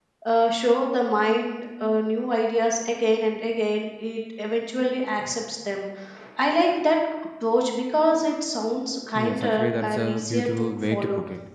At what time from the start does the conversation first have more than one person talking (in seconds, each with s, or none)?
9.2 s